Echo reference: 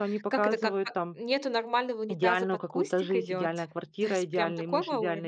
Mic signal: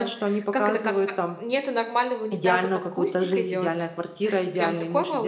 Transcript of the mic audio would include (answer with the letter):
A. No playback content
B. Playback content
B